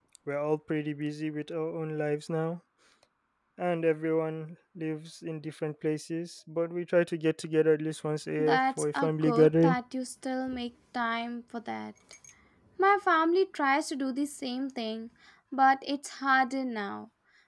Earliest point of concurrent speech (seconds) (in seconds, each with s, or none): 8.4 s